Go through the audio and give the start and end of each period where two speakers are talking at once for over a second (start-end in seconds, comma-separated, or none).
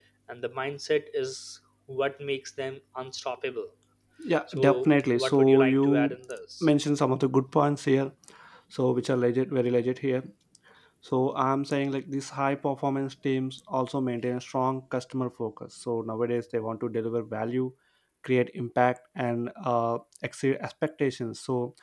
4.5-6.2